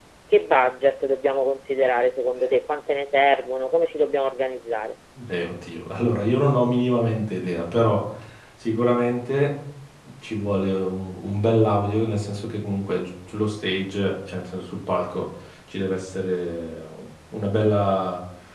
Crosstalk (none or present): none